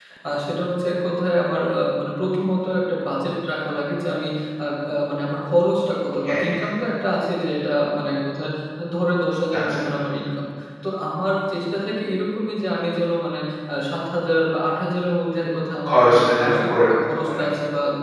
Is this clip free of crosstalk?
No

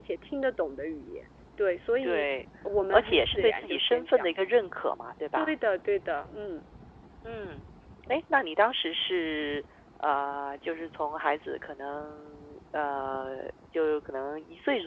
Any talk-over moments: Yes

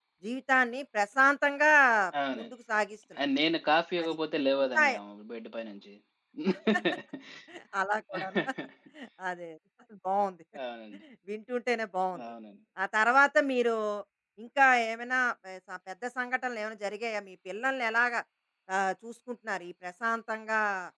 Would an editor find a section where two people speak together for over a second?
No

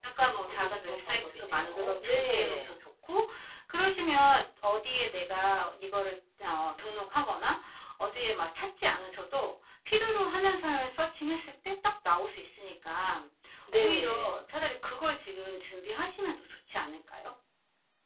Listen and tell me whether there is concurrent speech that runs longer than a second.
Yes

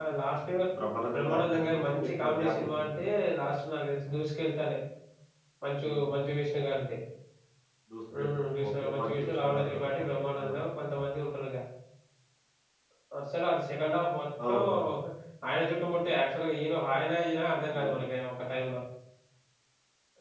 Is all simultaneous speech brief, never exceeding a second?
No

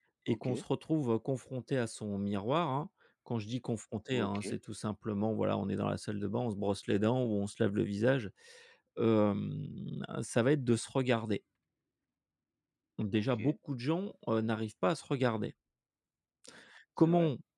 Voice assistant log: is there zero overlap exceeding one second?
Yes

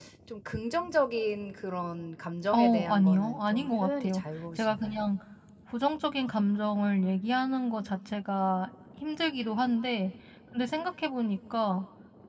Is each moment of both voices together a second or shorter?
No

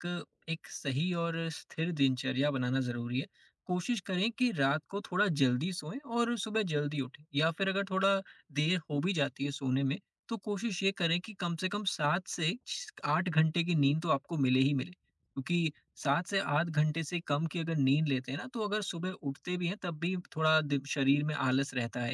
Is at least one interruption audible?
No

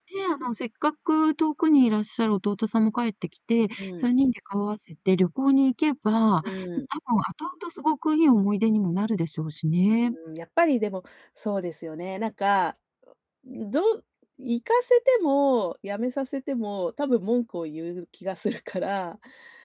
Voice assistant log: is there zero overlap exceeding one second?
Yes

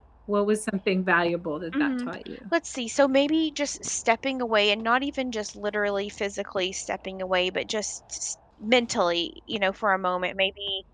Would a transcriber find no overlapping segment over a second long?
Yes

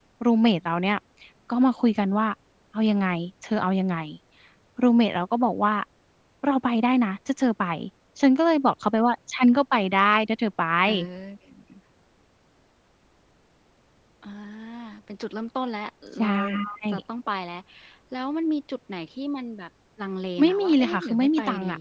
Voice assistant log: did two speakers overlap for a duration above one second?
Yes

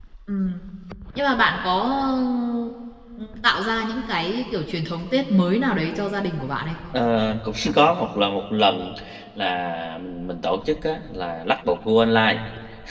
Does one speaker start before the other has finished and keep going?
No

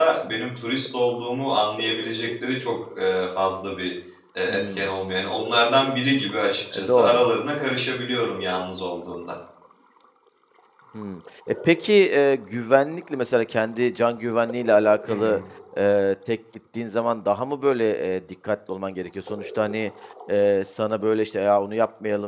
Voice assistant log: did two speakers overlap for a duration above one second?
No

